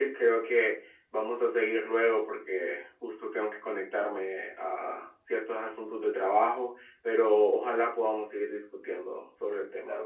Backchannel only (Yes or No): No